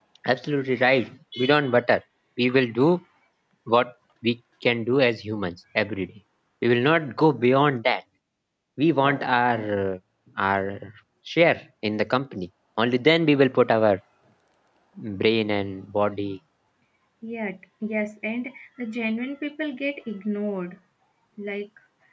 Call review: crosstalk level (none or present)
none